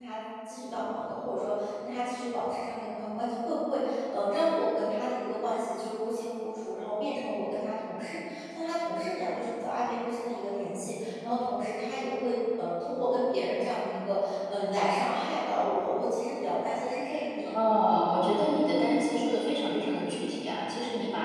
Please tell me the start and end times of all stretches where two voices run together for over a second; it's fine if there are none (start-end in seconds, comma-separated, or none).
none